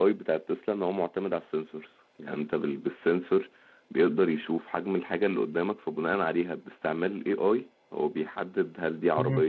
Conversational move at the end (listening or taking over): listening